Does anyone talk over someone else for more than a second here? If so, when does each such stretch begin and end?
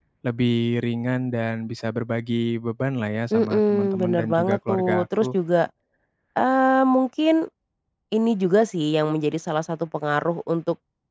3.3-5.4

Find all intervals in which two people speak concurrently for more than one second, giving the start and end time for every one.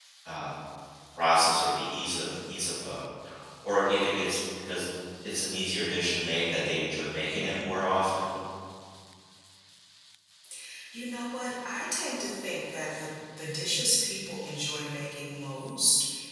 none

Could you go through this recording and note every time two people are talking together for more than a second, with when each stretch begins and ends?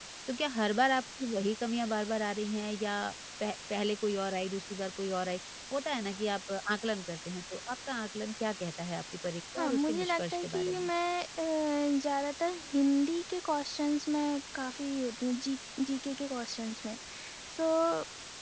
9.6-10.9

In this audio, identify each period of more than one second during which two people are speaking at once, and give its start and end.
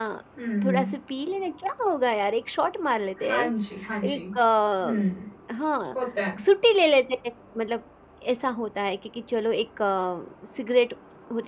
none

